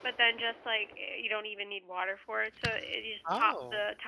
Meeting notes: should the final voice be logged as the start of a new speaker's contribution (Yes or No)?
No